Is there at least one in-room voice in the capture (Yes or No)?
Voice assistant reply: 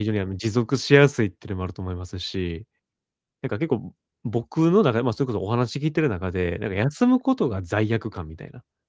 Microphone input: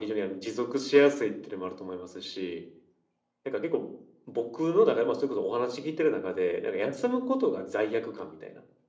No